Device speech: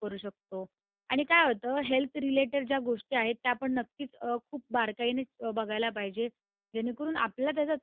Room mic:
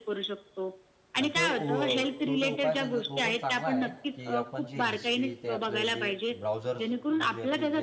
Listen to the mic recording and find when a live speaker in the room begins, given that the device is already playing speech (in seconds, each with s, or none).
1.2 s